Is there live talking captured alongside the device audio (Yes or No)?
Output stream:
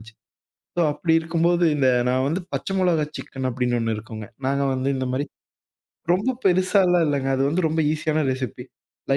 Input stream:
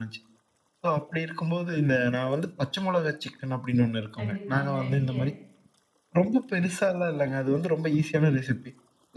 Yes